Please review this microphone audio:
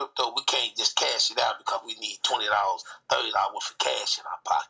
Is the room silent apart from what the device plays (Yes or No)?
Yes